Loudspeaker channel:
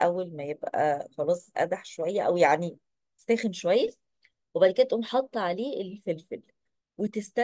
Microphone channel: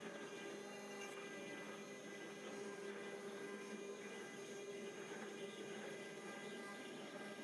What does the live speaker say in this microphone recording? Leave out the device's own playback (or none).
none